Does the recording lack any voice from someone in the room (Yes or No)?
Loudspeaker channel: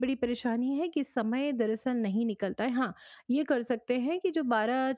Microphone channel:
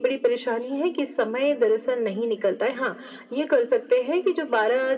Yes